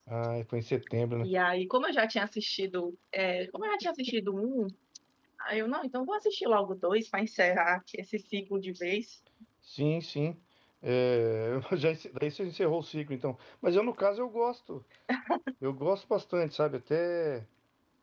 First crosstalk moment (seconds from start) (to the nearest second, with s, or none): none